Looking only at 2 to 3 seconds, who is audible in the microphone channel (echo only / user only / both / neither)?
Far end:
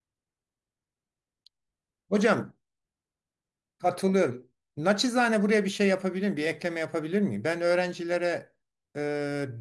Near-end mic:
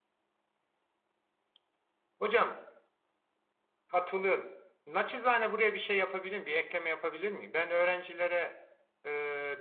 echo only